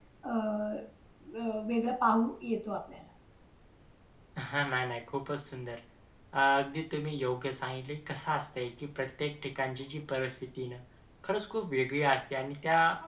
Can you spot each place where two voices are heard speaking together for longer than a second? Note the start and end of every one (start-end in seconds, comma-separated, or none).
none